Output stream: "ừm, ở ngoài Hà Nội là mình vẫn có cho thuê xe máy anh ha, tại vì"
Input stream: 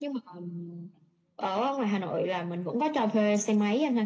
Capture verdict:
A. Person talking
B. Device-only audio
B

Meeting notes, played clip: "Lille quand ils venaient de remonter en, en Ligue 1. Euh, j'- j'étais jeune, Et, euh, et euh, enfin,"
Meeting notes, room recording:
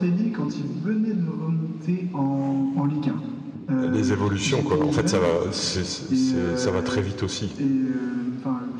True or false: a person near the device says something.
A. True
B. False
A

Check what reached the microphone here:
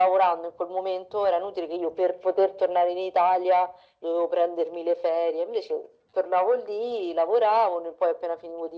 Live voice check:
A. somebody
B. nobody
B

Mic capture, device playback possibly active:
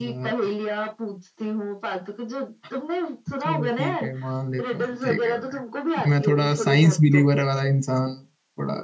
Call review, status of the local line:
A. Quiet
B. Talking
B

